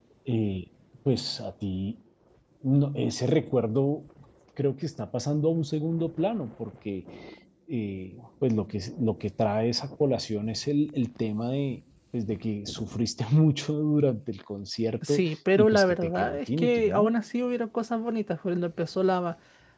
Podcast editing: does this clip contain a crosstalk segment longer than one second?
Yes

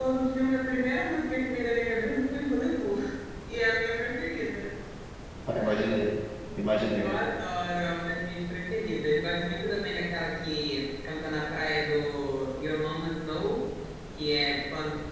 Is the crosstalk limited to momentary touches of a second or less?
Yes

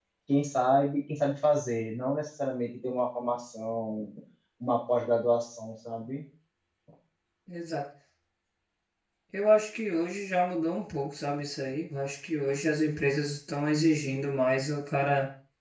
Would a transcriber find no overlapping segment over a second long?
Yes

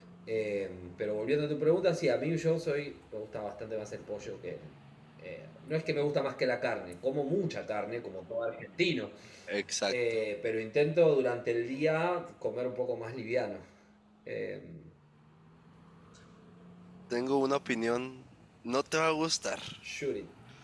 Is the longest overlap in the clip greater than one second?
No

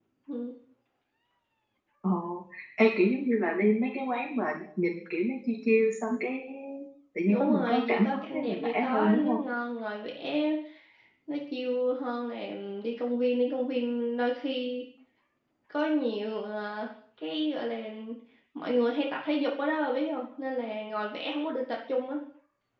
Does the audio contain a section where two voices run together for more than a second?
Yes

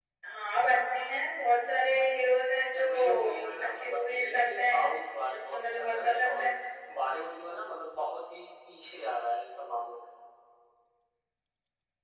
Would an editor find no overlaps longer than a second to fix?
No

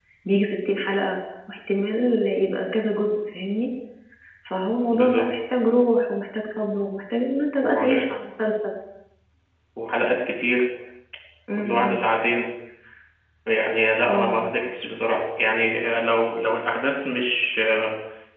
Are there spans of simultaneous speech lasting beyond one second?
No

